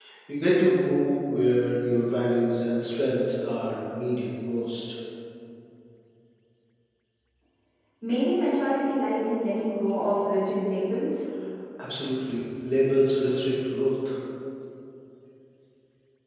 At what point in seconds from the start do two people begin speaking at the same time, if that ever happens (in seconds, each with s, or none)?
none